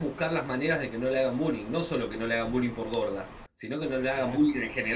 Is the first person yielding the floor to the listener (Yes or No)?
No